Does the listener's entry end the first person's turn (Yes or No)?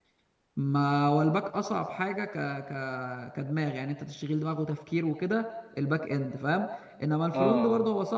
No